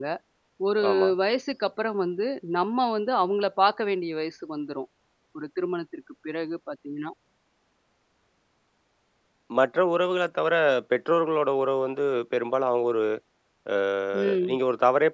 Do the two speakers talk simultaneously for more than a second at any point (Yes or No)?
No